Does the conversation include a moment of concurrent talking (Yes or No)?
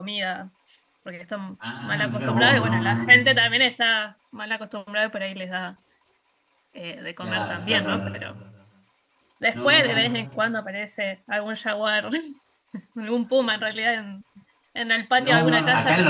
Yes